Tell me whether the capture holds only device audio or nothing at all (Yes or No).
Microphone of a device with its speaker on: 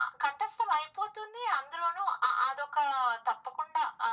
Yes